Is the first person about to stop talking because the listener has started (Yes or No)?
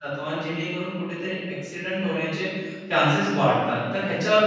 No